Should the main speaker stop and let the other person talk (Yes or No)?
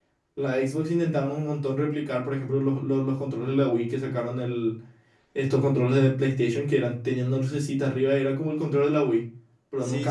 Yes